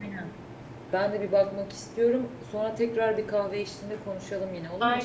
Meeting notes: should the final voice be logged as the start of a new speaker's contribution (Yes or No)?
Yes